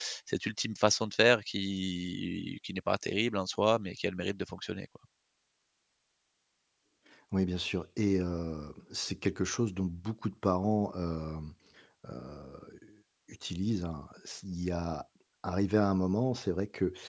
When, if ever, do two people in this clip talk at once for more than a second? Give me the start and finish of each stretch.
none

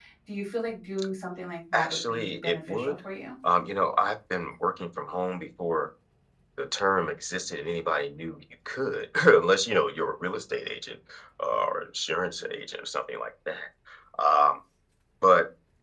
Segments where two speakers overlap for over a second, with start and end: 1.7-2.9

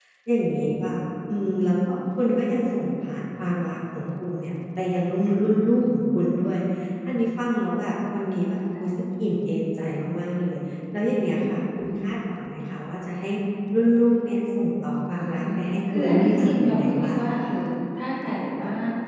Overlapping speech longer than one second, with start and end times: 15.9-17.5

